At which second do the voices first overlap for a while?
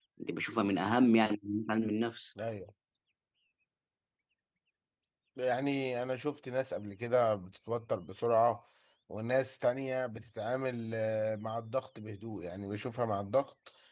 none

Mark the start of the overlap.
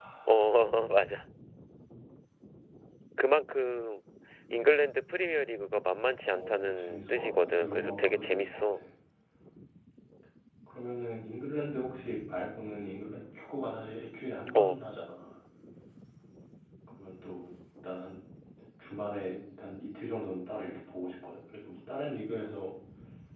6.3 s

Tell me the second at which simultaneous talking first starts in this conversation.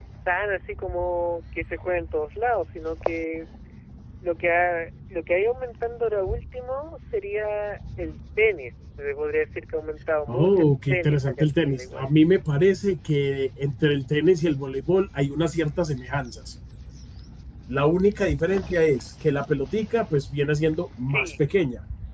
10.3 s

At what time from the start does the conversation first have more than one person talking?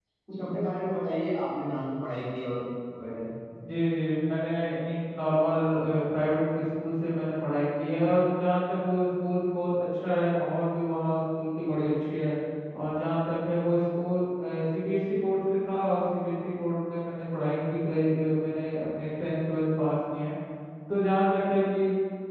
none

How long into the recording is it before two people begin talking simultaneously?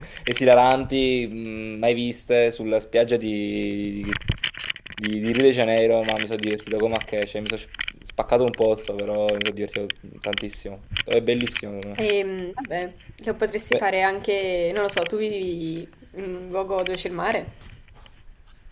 none

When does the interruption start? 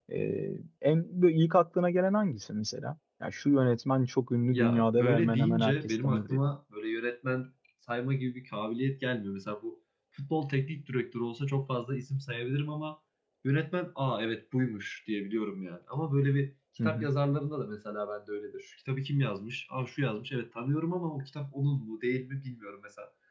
4.5 s

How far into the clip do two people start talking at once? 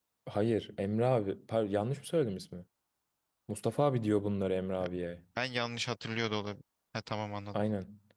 none

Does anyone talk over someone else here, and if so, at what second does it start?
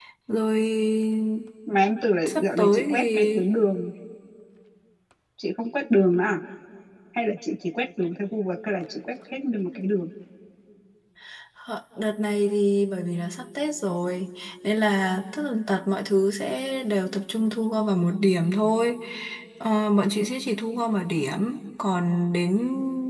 2.2 s

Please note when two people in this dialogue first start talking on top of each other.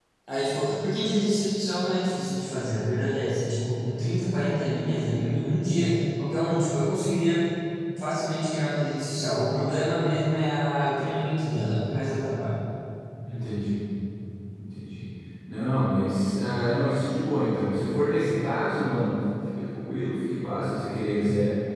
none

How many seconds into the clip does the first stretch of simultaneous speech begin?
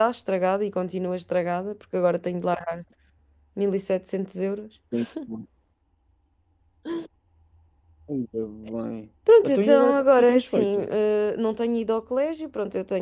9.3 s

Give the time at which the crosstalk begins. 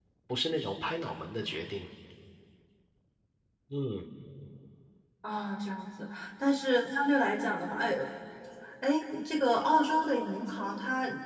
none

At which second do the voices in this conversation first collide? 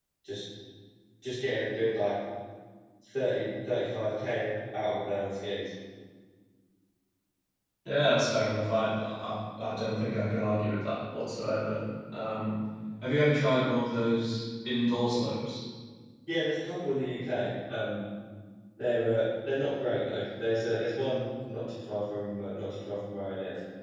none

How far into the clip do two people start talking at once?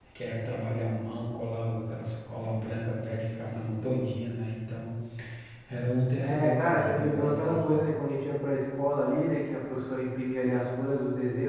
6.2 s

